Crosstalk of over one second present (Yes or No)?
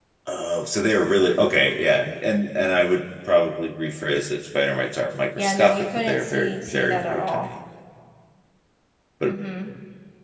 Yes